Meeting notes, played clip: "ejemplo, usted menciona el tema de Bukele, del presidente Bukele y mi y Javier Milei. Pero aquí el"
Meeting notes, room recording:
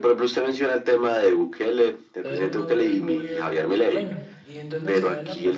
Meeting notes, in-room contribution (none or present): present